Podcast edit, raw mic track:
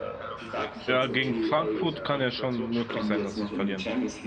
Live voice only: Ja, gegen Frankfurt kann ja schon möglich sein, dass sie verlieren.

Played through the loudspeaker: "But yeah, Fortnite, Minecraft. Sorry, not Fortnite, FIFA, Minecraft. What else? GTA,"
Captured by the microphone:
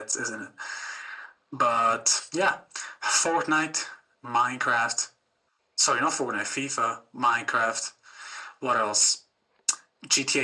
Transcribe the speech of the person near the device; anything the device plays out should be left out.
none

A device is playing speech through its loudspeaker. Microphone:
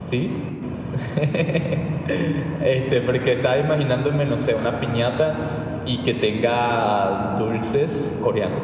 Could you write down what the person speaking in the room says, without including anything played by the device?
none

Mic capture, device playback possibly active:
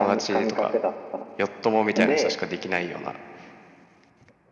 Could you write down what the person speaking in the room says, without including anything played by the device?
none

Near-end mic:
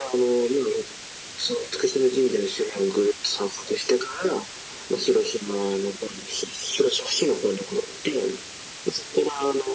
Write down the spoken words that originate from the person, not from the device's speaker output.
none

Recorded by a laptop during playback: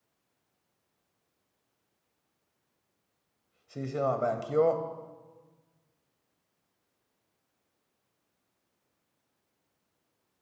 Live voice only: Sì, sì, no, vabbè, anch'io,

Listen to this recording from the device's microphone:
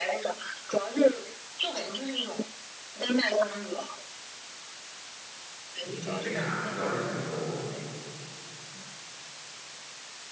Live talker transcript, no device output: 名景点了，很早就听说过，

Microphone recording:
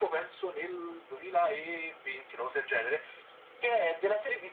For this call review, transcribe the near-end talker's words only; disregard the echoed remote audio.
none

